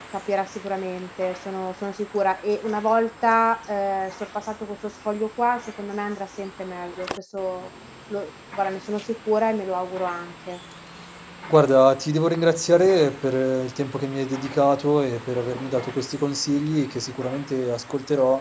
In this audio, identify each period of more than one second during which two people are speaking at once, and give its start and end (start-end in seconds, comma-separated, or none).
none